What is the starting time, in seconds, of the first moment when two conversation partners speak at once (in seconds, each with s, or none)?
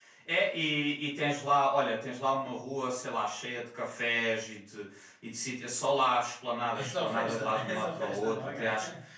6.7 s